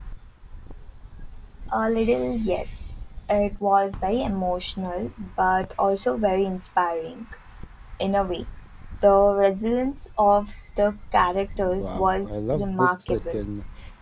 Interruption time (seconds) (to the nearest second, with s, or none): 12 s